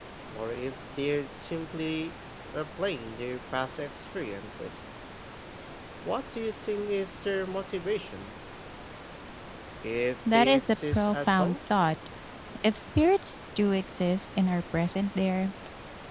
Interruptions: present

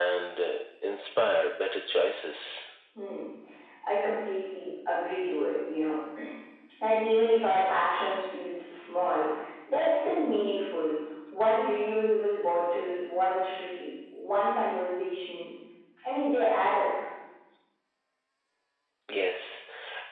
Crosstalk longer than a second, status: none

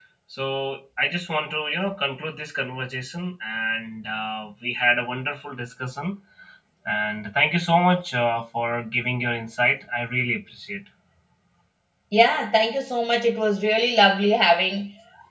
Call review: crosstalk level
none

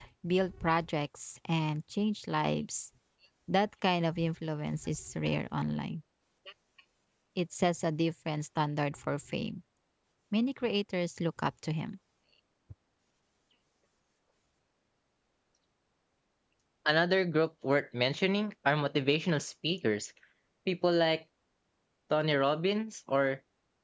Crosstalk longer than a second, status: none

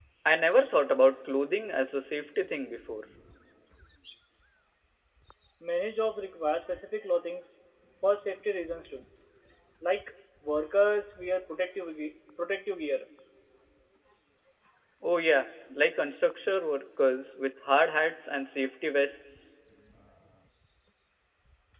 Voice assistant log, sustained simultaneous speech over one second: none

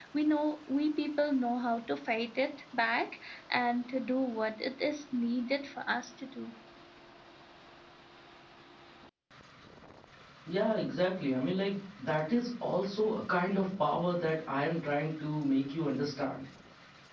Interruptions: none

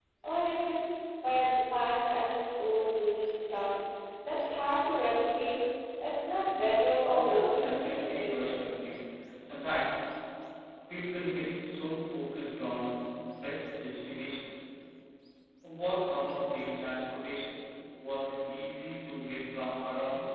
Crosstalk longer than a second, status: present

